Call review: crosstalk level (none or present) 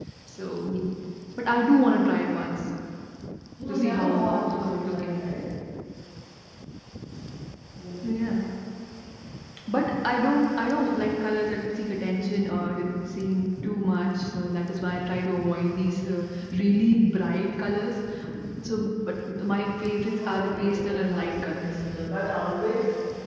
present